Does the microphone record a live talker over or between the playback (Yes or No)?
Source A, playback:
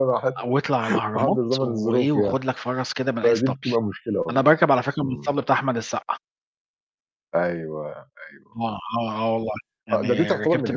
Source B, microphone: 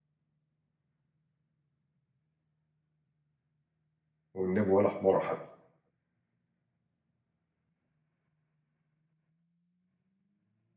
Yes